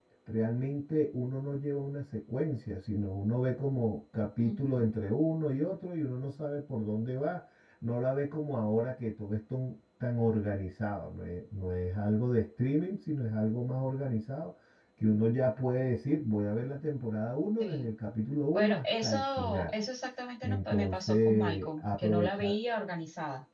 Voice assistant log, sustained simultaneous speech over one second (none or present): present